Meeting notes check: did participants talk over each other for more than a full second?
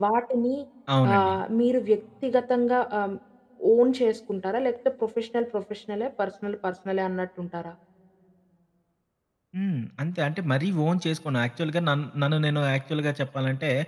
No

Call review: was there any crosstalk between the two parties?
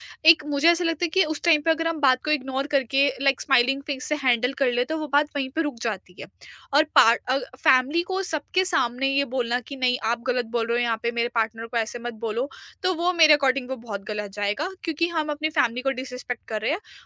No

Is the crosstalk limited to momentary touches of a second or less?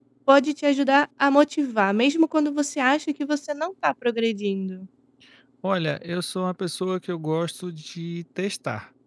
Yes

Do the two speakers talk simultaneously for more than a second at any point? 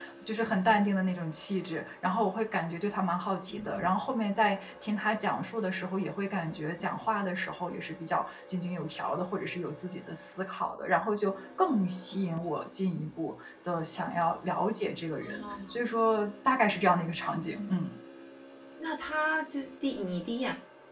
No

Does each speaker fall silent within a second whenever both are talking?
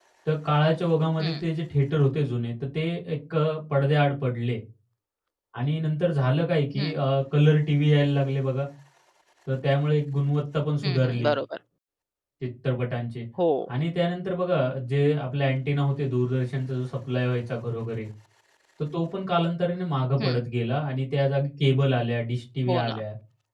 Yes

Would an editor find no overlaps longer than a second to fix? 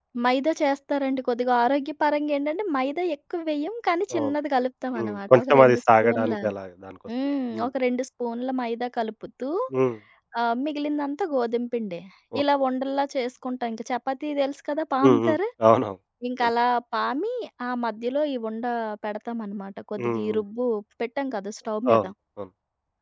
No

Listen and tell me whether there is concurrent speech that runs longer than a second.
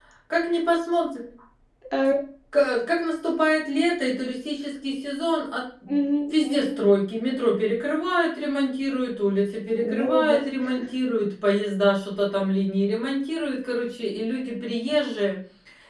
No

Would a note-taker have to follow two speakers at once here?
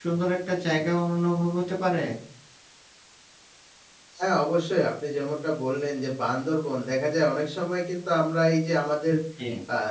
No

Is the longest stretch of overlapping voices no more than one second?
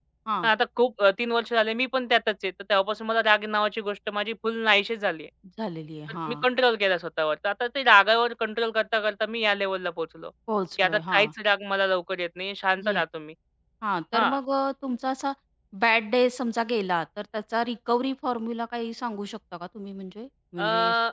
Yes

